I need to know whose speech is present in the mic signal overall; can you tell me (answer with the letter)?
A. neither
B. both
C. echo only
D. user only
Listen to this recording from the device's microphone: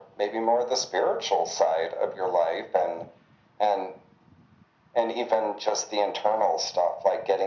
C